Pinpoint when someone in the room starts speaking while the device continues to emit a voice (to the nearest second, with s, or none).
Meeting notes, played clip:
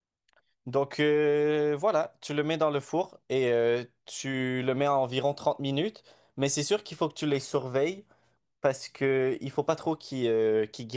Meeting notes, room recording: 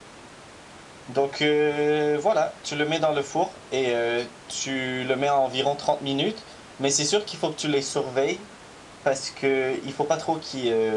none